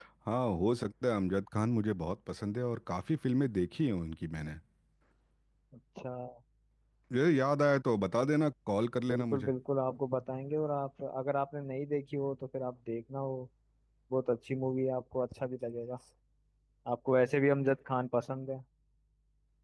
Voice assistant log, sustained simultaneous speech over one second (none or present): none